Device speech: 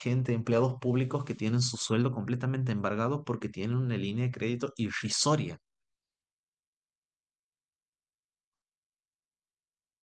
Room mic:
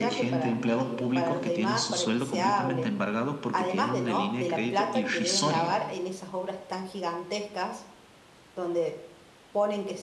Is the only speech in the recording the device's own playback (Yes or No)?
No